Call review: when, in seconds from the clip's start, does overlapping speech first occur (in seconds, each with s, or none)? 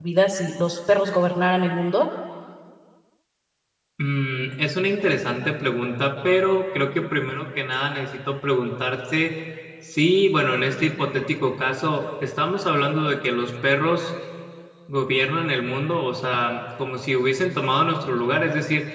none